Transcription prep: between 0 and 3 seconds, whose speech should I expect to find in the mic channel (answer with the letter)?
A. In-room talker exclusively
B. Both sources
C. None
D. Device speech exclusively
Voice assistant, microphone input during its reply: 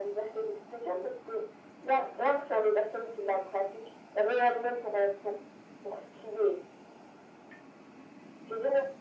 D